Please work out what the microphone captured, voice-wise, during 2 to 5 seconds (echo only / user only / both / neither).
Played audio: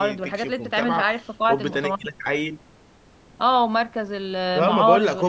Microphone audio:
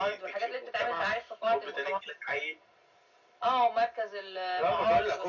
echo only